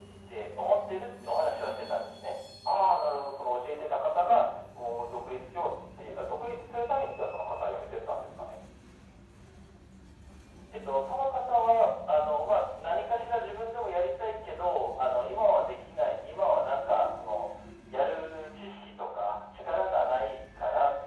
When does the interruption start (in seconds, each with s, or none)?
none